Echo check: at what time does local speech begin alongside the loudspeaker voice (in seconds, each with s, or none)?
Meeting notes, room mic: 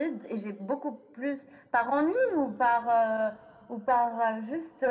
none